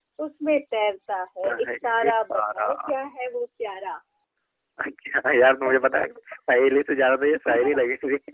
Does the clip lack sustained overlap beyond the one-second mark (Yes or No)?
No